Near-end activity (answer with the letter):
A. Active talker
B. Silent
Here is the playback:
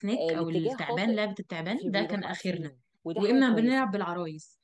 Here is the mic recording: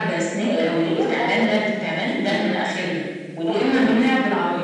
B